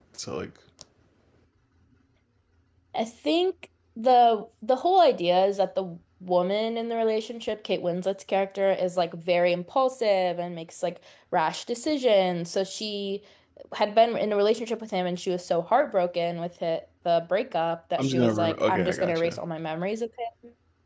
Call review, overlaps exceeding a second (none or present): present